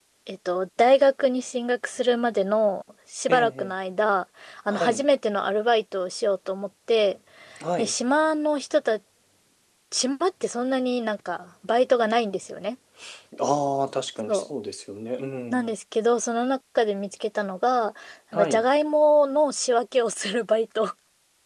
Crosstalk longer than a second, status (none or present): none